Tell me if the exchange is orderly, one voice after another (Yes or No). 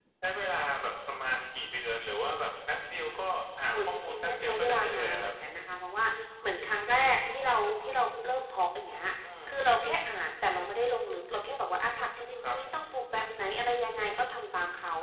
No